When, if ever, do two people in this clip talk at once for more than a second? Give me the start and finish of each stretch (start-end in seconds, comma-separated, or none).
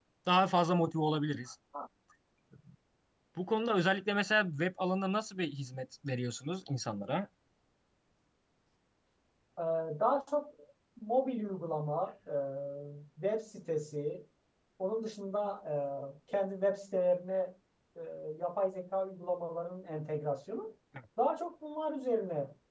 none